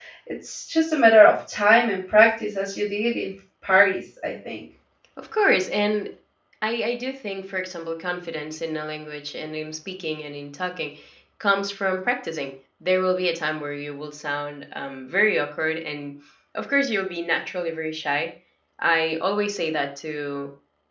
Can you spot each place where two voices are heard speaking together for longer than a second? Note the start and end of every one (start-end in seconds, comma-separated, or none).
none